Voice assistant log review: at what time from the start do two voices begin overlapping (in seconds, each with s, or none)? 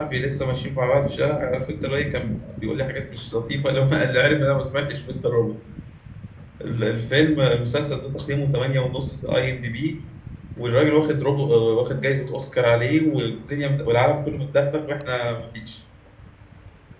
none